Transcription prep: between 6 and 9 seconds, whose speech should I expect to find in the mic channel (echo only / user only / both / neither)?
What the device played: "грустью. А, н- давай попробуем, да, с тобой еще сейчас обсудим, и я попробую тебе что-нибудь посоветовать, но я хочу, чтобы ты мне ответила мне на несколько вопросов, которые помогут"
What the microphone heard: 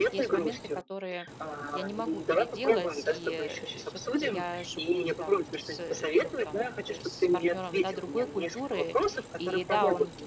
both